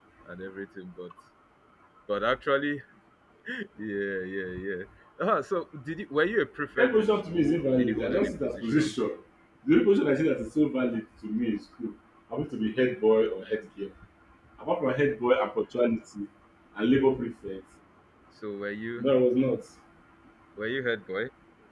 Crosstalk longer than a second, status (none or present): present